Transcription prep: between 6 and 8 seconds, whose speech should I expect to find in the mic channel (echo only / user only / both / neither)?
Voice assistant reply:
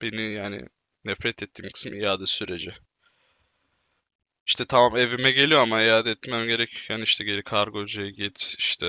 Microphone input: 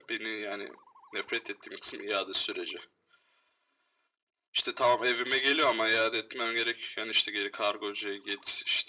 echo only